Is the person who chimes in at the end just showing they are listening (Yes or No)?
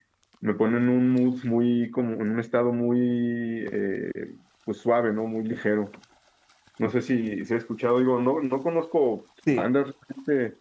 Yes